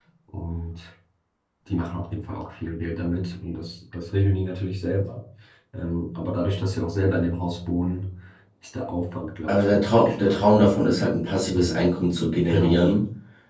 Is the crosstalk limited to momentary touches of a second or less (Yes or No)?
No